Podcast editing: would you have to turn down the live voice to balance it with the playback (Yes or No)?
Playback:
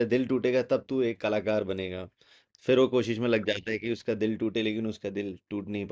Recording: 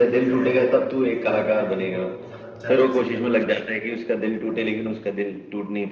No